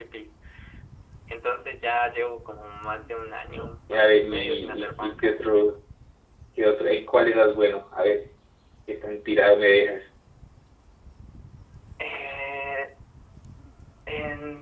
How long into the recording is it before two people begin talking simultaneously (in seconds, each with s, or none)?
3.9 s